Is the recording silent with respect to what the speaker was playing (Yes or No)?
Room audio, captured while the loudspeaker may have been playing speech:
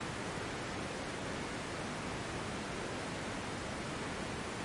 Yes